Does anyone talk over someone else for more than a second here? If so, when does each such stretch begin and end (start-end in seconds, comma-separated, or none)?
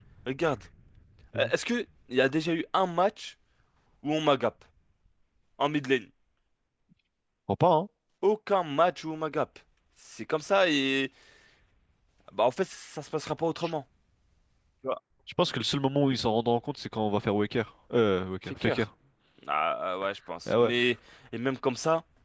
none